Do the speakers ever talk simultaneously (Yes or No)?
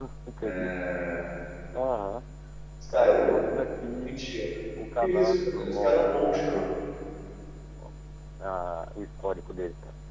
Yes